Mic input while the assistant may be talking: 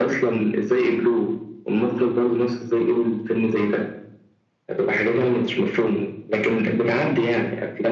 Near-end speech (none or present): none